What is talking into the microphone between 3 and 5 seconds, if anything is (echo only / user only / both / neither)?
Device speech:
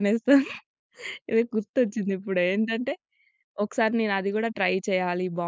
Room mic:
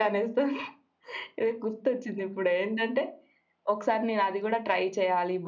echo only